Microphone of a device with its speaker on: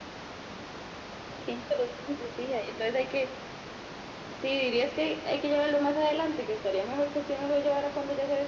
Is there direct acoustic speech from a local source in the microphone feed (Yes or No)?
No